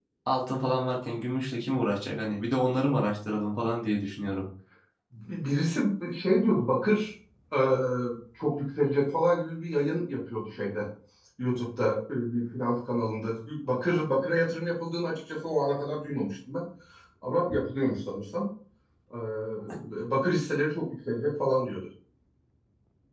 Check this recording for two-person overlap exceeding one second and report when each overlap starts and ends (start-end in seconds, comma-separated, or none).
none